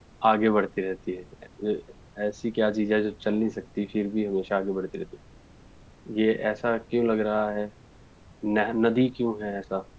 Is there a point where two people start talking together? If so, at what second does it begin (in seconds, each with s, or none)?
none